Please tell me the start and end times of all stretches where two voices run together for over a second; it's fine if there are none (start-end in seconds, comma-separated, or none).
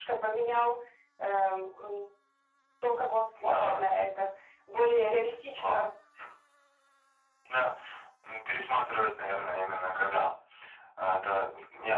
none